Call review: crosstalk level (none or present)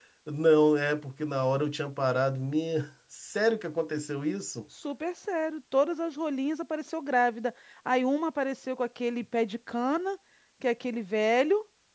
none